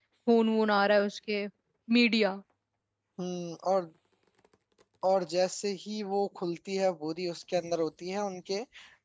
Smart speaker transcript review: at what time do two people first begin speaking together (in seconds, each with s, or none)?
none